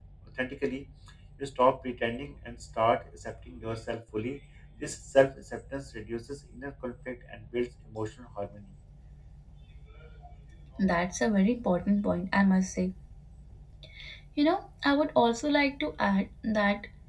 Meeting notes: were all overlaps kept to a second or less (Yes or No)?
Yes